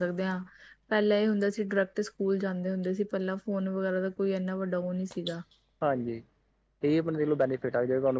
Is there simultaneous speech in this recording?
No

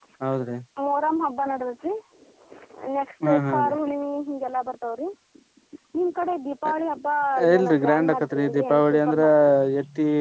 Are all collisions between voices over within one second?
No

